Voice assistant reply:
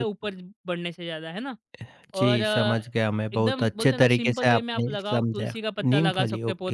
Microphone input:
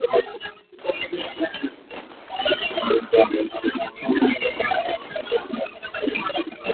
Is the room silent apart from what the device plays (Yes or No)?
Yes